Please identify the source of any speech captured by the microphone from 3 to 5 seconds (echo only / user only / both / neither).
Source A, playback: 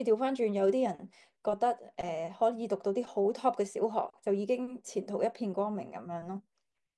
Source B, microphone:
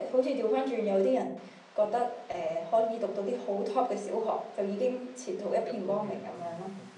echo only